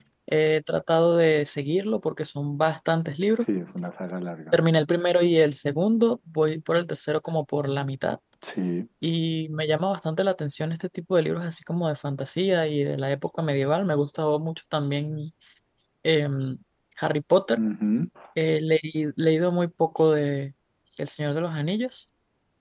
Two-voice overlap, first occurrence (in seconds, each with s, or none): none